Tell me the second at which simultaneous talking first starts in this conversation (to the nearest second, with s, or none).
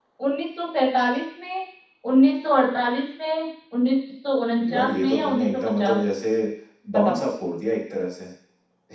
5 s